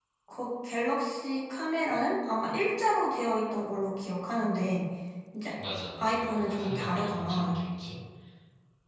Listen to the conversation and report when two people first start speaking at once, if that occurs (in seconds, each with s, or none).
6.0 s